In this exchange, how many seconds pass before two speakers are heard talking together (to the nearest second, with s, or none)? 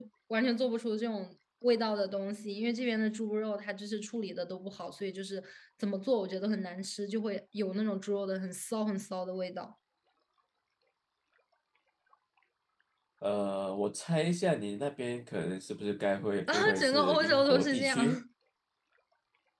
16 s